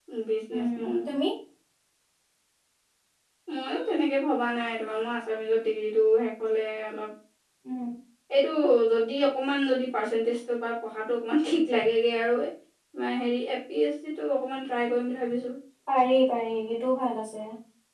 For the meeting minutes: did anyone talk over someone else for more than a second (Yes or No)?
No